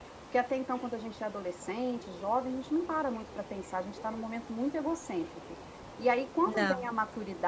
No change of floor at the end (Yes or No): Yes